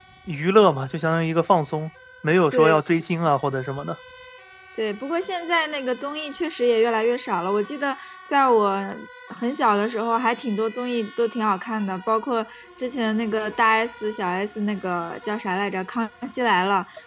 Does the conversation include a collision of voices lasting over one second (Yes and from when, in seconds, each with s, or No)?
No